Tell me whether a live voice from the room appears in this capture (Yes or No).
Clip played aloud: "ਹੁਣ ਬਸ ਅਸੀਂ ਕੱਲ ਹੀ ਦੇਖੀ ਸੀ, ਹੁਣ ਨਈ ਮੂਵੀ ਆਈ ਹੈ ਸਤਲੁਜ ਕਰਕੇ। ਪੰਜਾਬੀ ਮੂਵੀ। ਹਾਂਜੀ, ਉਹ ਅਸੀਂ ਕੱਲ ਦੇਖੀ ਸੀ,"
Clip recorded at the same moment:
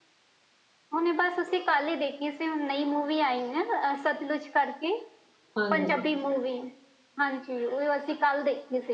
Yes